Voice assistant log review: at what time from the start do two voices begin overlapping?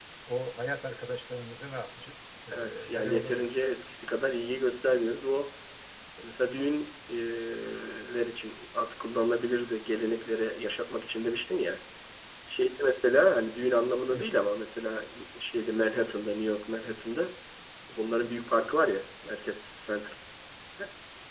2.5 s

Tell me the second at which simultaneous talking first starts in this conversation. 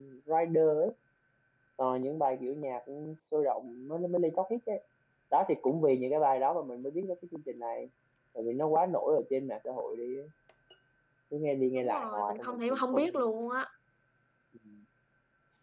11.8 s

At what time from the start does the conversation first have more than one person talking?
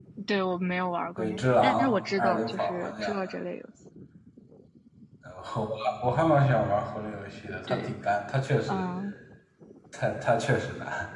1.2 s

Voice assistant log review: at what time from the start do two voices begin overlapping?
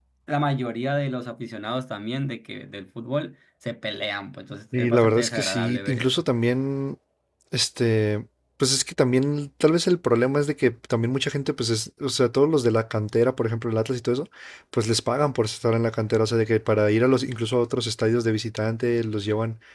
4.7 s

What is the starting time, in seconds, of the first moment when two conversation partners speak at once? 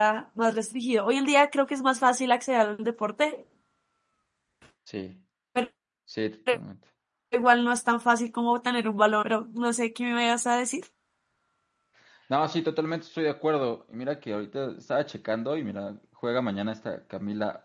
none

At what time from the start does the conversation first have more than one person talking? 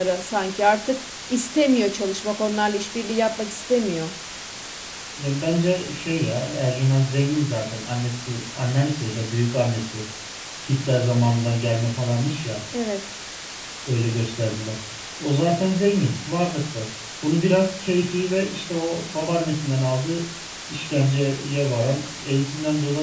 none

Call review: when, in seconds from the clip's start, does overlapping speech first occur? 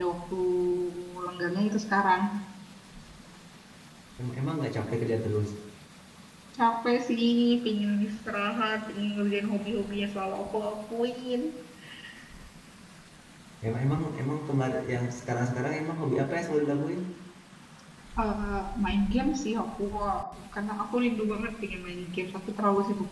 none

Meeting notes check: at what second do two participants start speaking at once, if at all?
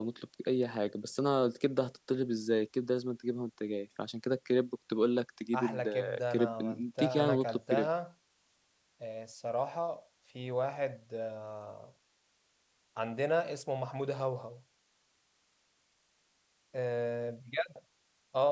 5.5 s

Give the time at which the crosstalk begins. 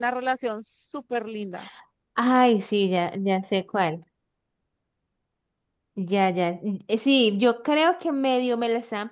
none

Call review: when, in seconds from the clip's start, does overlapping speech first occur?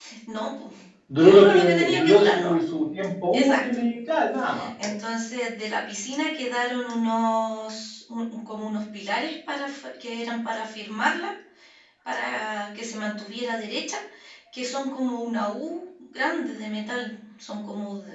1.1 s

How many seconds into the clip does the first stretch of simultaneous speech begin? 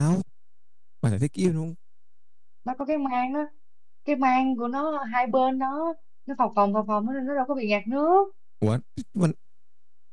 none

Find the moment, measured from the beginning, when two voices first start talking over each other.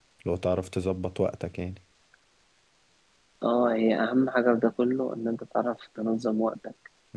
none

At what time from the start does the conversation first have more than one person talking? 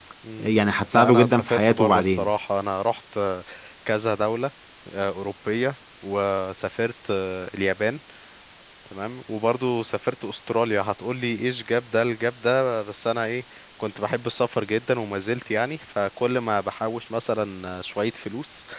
0.9 s

